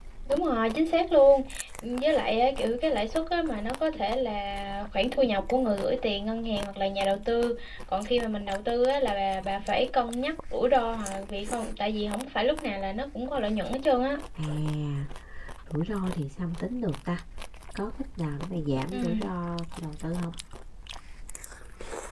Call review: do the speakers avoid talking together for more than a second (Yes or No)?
Yes